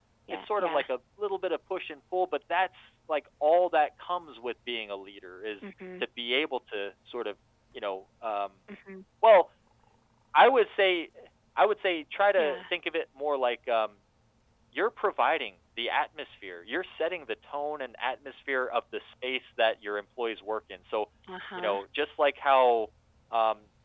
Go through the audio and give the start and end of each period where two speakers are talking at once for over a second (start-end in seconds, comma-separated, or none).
none